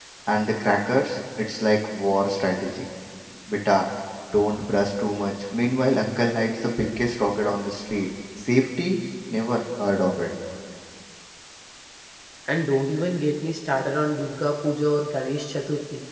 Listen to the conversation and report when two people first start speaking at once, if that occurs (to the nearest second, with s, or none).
none